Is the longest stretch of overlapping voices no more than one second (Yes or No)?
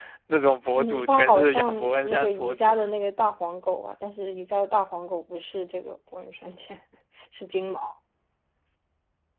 No